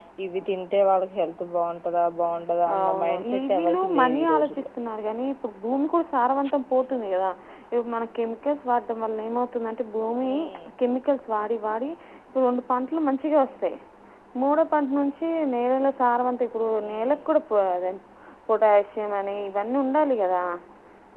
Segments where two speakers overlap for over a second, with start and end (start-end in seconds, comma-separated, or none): 2.8-4.7